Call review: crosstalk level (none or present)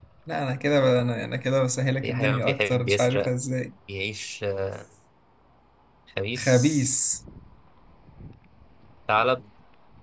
present